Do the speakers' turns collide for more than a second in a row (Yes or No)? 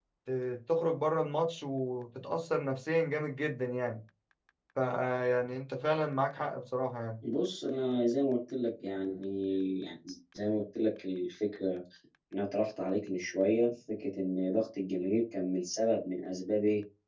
No